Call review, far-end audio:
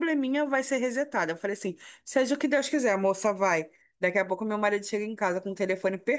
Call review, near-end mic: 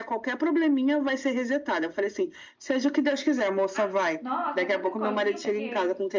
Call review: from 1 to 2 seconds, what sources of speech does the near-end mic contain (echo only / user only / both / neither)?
echo only